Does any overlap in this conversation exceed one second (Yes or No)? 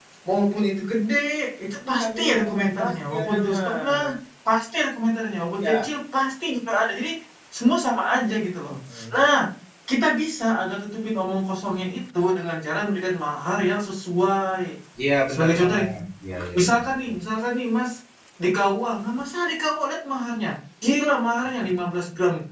Yes